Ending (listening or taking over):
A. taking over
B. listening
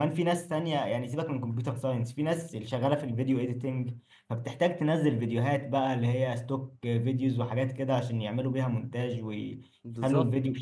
B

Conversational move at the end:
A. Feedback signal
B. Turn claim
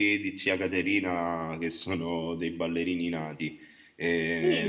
B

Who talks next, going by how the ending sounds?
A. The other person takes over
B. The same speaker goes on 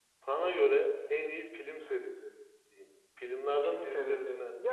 A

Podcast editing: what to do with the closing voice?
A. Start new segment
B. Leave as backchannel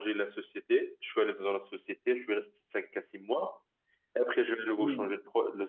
B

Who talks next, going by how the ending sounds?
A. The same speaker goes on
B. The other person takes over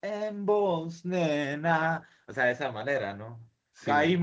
A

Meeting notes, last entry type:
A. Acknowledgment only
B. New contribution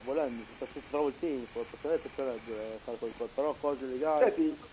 B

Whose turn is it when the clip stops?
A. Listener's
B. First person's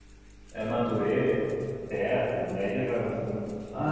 A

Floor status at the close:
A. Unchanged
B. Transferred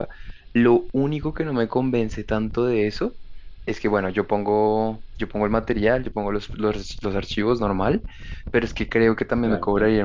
A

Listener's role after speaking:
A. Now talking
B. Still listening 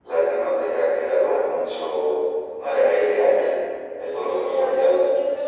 A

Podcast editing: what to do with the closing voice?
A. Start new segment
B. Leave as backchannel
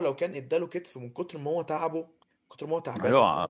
A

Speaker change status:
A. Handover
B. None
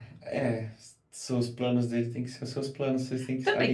A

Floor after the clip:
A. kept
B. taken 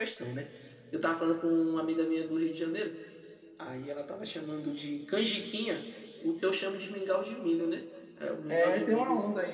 B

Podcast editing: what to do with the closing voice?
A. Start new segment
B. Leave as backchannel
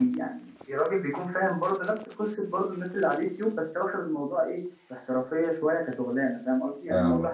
B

